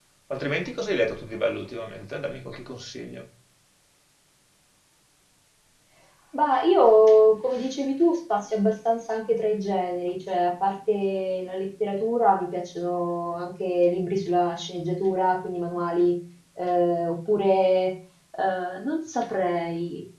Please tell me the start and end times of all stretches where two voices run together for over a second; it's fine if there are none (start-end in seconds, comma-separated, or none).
none